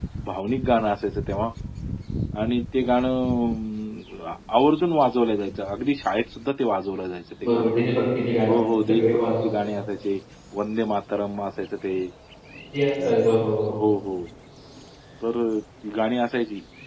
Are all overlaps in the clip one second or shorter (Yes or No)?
No